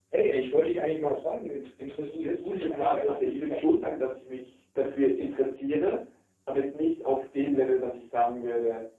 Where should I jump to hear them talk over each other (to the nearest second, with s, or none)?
2 s